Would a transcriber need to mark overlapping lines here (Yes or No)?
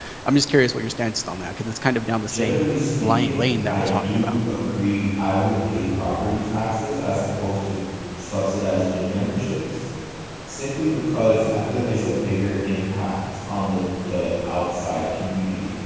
Yes